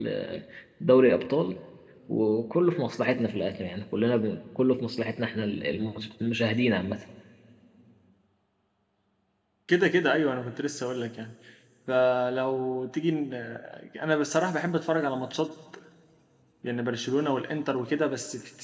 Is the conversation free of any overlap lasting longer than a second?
Yes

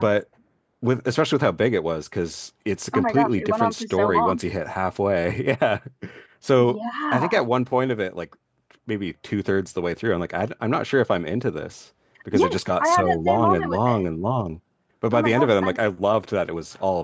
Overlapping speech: Yes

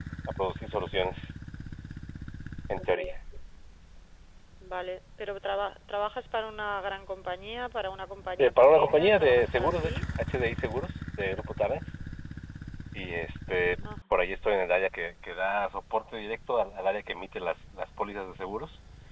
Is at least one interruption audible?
Yes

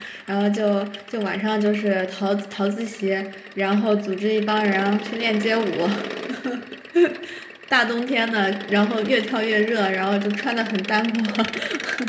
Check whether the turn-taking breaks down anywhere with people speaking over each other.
No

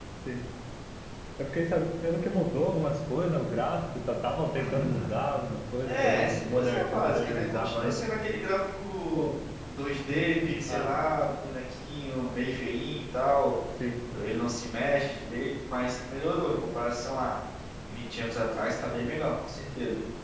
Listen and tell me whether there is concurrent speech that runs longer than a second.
Yes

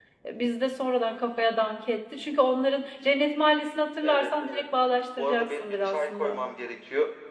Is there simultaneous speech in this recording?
Yes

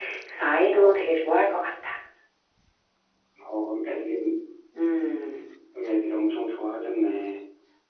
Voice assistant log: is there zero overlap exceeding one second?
Yes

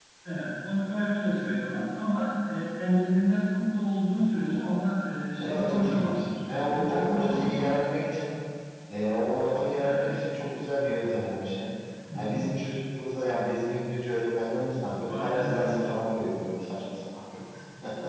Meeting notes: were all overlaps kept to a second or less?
No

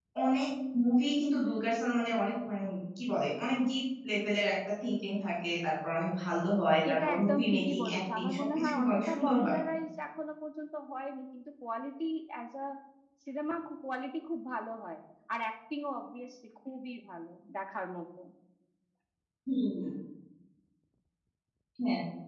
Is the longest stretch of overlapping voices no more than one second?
No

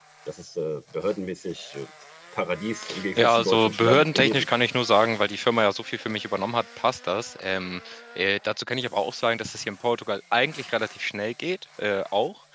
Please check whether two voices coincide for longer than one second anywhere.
Yes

